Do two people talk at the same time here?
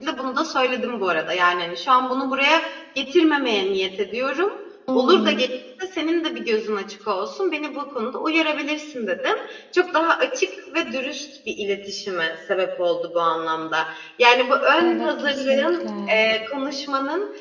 Yes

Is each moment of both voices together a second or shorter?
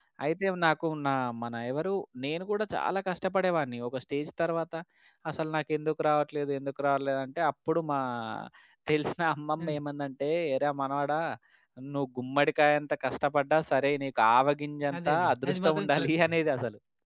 No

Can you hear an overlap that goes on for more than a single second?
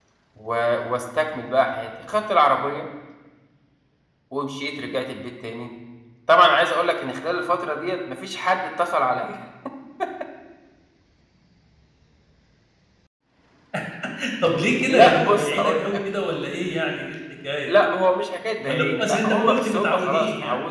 Yes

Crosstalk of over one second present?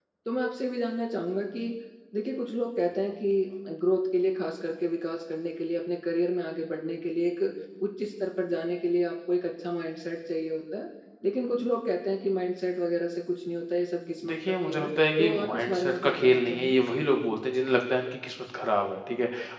Yes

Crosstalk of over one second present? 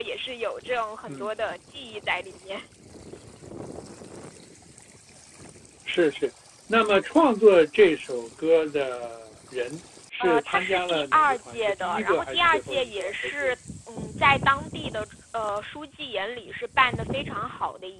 Yes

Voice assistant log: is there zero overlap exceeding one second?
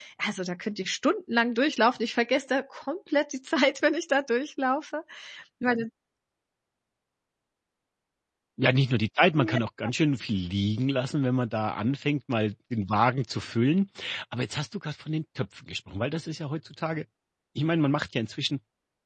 Yes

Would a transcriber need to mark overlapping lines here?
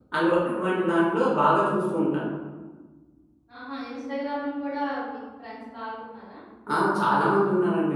No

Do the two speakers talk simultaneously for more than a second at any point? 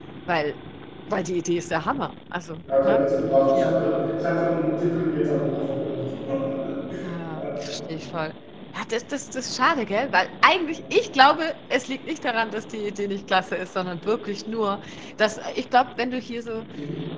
No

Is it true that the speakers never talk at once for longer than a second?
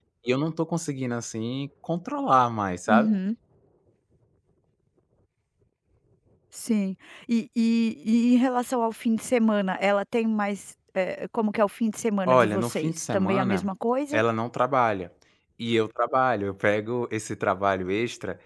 No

